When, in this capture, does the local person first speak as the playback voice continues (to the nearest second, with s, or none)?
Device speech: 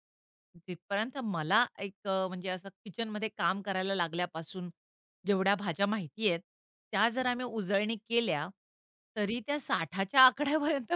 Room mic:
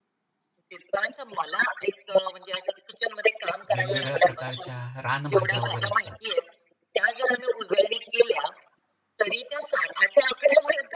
4 s